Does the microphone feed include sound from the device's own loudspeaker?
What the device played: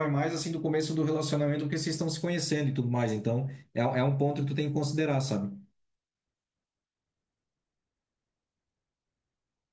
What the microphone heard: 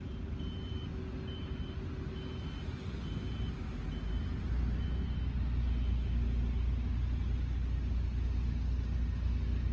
No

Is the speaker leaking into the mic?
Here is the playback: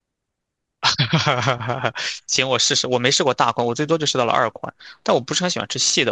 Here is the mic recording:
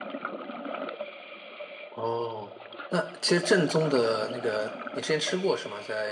No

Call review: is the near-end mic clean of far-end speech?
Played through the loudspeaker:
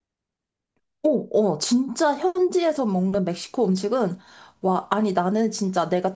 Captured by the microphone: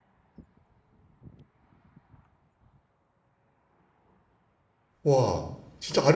Yes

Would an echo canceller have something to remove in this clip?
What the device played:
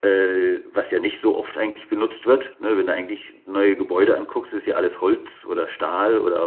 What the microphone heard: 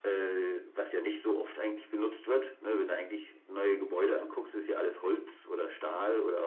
Yes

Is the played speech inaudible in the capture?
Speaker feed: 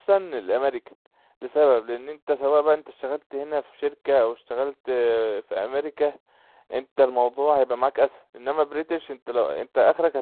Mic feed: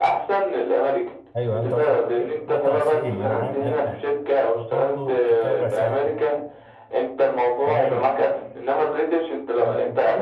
No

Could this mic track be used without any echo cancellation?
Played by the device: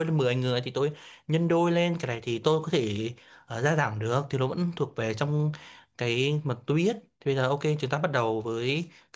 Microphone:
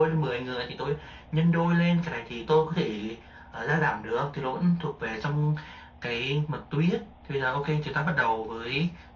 No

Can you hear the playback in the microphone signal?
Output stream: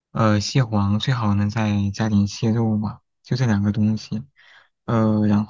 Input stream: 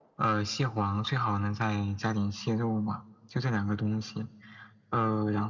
Yes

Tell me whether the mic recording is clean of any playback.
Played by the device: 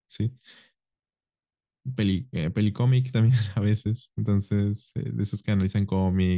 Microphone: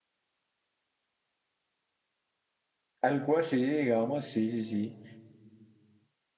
Yes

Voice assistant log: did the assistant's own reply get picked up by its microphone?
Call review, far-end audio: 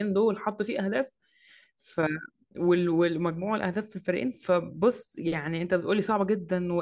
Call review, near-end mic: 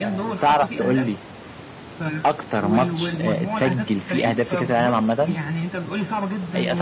Yes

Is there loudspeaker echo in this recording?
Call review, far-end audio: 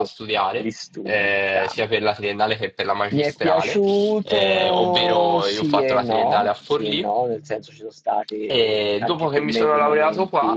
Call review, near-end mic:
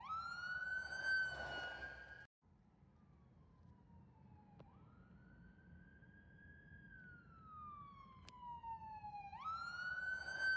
No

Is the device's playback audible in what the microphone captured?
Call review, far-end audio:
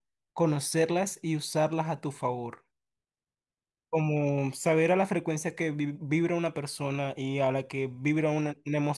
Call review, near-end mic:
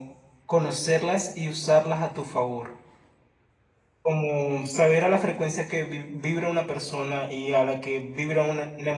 Yes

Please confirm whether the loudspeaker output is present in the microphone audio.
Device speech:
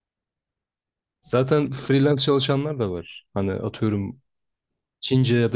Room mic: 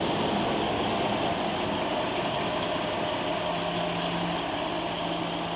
No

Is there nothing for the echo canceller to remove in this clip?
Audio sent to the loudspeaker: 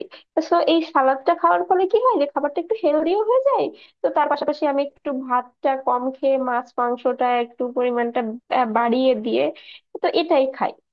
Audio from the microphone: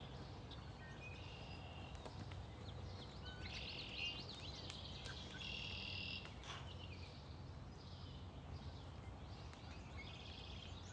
Yes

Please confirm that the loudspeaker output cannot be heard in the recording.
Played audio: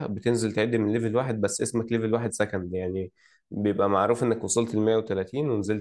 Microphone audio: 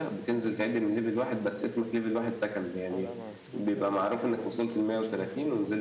No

